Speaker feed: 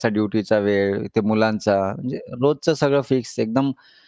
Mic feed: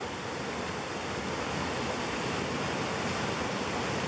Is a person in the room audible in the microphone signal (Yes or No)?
No